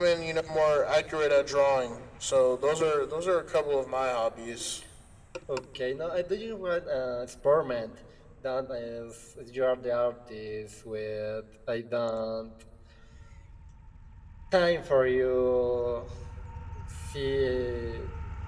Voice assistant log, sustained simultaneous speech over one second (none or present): none